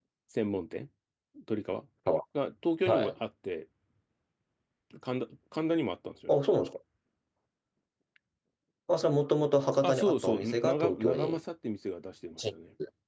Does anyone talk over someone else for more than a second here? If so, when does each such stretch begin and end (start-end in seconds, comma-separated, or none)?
9.8-11.4